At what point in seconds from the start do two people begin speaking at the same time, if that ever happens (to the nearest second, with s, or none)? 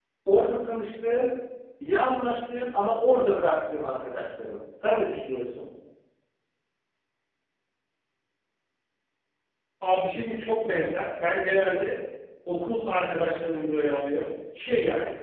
none